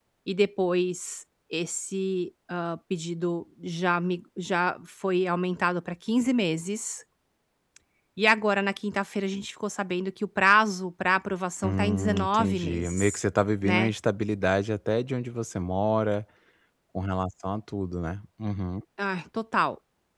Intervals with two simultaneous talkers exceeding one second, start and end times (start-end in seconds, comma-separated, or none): 11.6-13.2